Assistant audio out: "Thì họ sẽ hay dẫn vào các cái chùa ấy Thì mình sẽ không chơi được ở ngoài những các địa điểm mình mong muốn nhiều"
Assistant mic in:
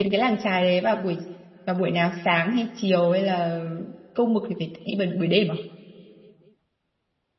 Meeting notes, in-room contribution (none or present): present